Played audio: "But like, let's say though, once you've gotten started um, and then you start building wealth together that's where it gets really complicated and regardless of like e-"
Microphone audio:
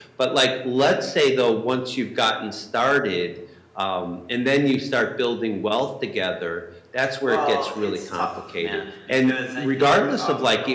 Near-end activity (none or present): present